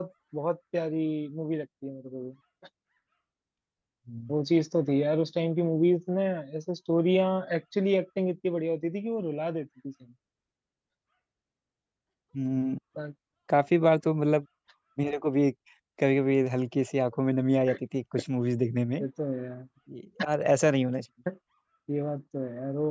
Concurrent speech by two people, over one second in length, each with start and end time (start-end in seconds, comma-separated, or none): none